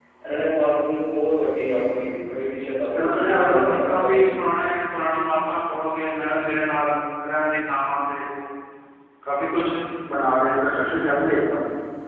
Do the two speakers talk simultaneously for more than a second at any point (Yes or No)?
Yes